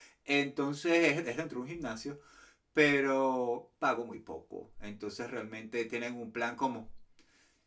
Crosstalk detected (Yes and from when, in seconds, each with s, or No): No